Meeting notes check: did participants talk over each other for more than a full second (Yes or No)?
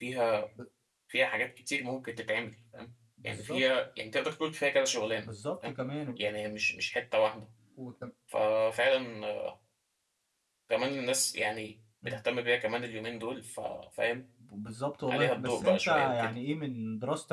Yes